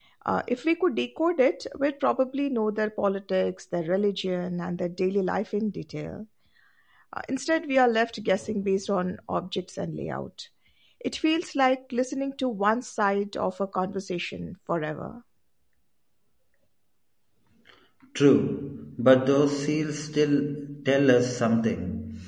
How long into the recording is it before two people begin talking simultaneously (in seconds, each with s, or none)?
none